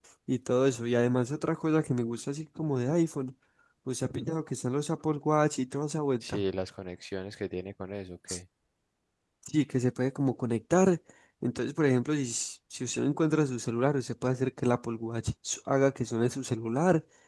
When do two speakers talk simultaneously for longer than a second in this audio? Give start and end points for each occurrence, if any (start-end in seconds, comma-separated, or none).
none